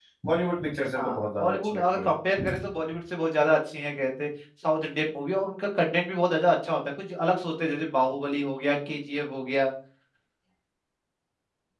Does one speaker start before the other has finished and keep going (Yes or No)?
Yes